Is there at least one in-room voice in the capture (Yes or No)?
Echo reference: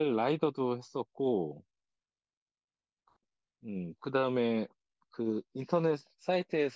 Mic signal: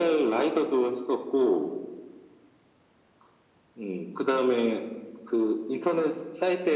No